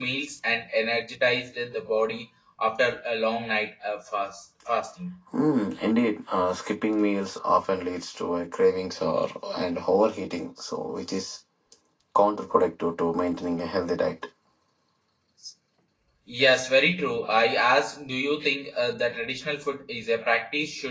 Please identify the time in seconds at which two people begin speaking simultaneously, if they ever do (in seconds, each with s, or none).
none